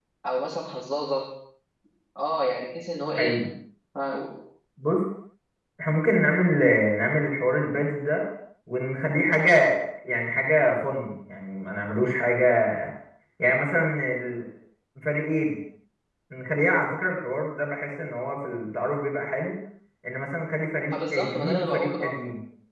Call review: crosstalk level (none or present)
present